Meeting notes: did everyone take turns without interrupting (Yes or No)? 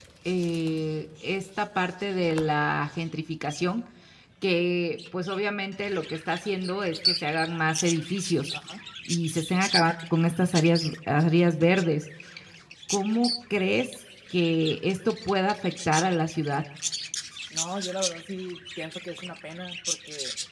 Yes